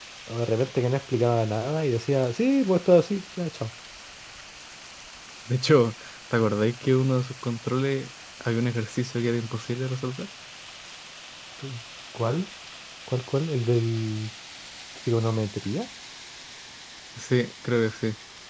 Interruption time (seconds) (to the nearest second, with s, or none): none